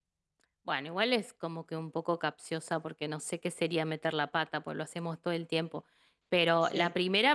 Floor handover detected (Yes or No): No